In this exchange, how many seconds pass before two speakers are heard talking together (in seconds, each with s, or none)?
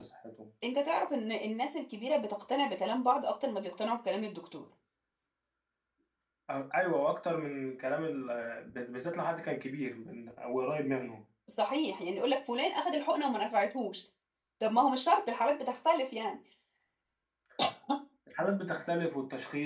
none